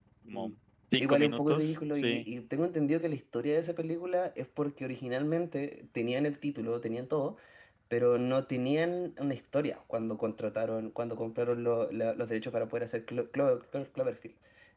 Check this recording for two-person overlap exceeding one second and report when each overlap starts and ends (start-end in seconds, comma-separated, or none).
1.0-2.2